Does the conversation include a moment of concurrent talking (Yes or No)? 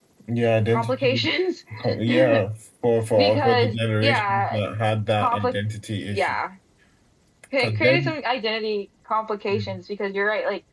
Yes